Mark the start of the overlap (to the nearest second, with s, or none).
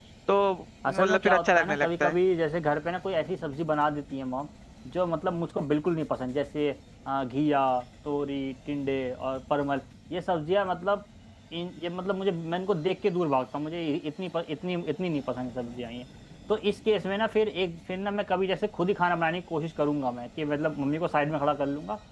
1 s